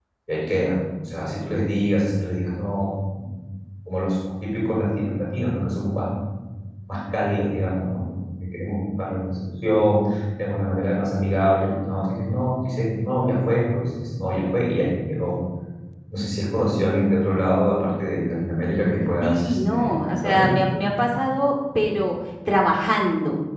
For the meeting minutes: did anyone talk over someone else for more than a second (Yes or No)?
Yes